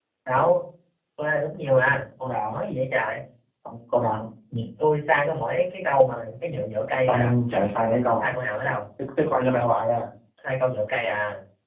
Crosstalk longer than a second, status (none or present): none